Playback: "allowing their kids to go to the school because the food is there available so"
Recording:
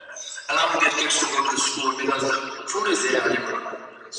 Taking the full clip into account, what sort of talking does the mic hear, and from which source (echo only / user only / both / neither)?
echo only